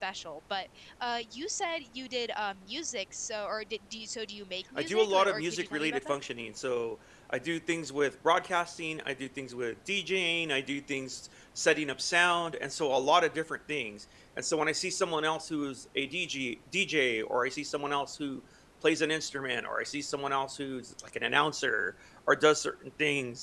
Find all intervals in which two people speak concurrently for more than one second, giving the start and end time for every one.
4.8-6.2

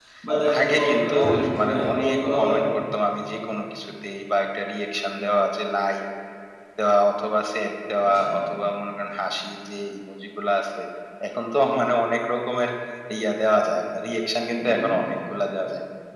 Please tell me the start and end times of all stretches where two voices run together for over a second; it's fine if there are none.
0.6-2.6

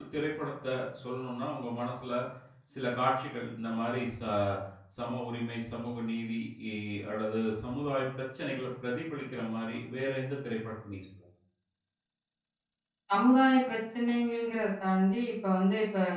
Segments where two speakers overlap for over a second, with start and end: none

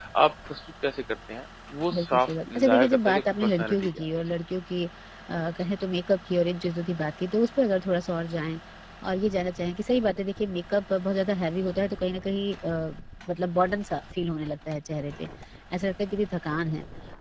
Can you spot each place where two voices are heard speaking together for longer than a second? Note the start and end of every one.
1.9-4.2

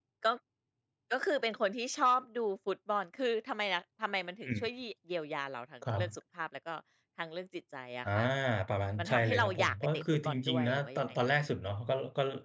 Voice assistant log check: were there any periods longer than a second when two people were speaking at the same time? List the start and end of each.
9.0-11.4

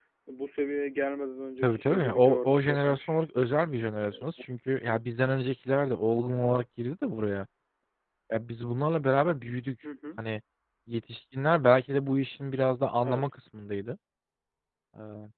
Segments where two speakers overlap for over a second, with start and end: 1.6-3.2

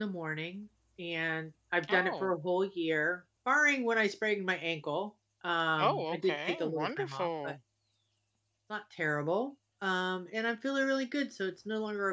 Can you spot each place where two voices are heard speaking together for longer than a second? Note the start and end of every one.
5.8-7.5

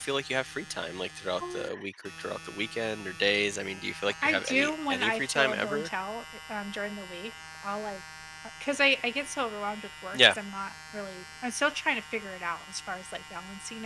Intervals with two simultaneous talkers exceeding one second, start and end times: 4.2-5.9

